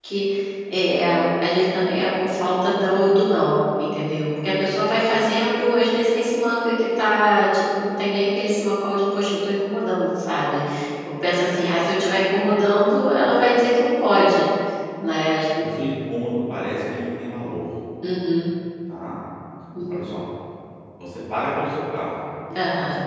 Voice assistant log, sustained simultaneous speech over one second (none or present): none